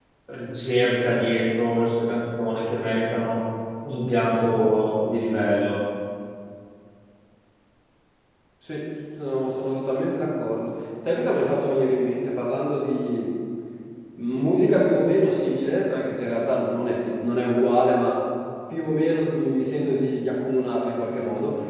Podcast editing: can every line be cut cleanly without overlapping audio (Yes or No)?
Yes